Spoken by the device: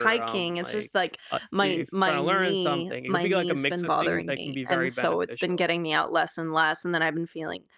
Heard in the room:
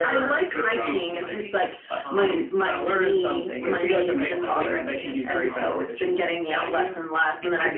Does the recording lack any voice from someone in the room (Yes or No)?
No